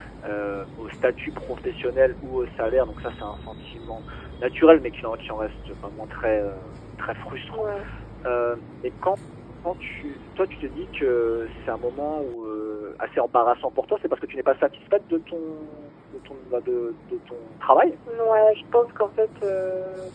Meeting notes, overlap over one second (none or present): none